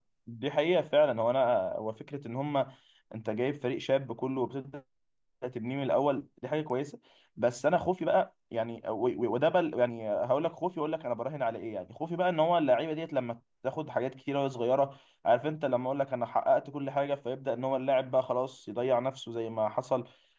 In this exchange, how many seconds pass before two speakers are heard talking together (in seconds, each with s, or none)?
none